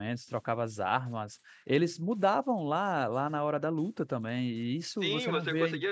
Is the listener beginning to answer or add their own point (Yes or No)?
Yes